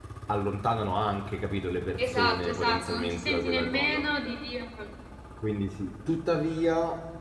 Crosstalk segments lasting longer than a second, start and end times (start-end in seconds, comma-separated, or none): 2.0-4.0